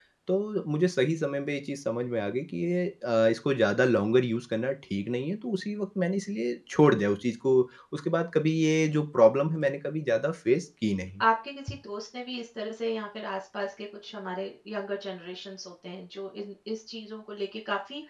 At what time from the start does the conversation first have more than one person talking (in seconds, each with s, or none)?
none